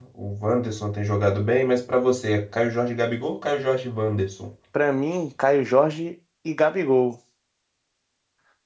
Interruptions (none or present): none